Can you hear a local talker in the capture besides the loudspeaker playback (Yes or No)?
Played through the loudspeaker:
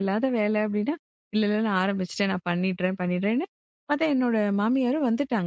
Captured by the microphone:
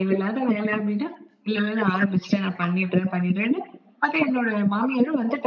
No